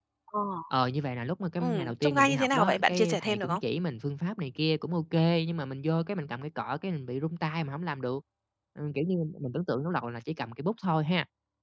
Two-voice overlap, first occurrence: 1.6 s

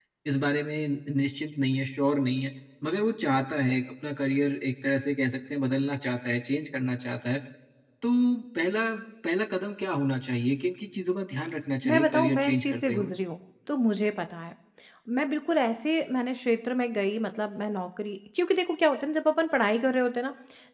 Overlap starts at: 11.8 s

